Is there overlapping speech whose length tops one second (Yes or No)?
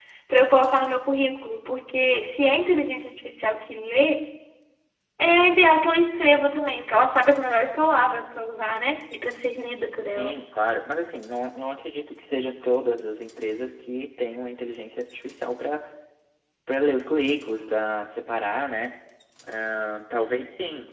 No